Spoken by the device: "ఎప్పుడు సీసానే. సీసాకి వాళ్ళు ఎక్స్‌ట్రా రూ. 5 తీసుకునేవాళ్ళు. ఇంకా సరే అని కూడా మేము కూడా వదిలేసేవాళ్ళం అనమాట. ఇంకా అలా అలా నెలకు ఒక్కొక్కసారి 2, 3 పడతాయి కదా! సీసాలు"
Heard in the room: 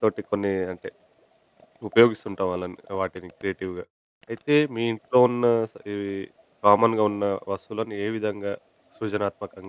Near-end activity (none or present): present